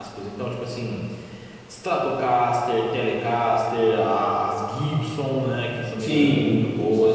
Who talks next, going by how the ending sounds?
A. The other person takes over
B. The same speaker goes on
A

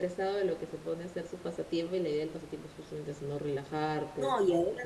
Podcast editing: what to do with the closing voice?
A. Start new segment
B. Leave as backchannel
A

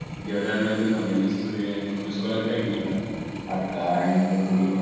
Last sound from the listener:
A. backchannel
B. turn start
A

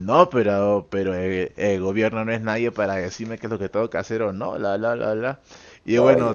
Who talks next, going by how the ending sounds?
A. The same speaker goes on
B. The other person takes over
A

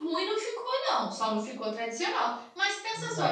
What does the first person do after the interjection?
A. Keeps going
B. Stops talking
A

